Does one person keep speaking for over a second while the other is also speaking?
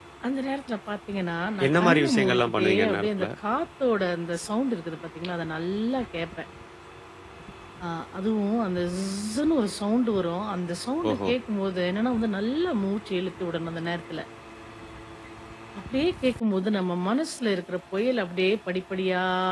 Yes, from 1.7 s

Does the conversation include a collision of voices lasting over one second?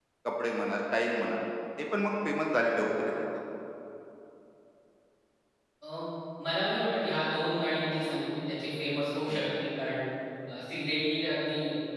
No

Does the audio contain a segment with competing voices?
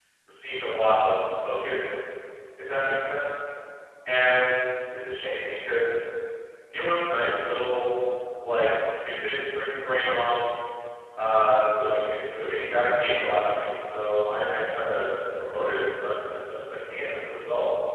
No

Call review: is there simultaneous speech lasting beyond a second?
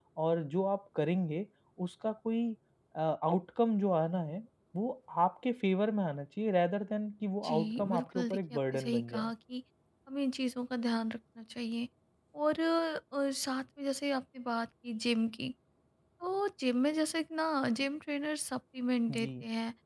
Yes, from 7.5 s

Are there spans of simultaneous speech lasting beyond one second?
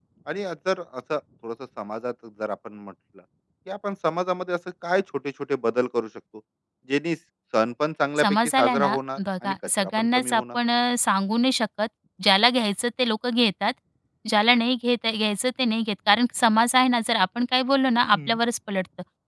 Yes, from 8.2 s

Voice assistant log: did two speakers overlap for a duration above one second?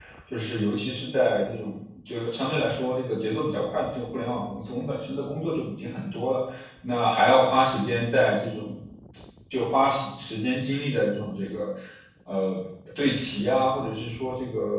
No

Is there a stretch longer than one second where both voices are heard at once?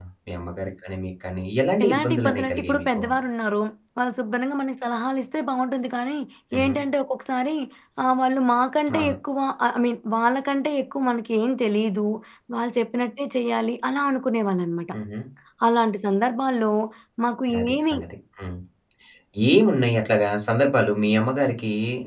Yes, from 1.8 s

